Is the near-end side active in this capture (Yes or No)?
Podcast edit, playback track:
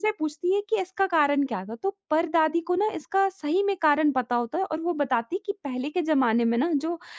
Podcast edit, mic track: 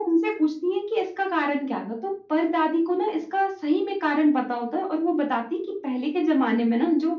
No